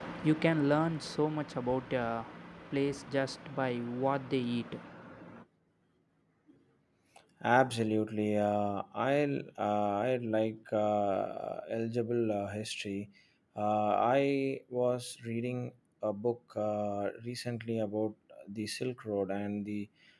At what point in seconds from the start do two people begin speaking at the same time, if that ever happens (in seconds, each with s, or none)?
none